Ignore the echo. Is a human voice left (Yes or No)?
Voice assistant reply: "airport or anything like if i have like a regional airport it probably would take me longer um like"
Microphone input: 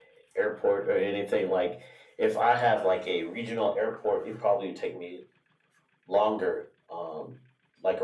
No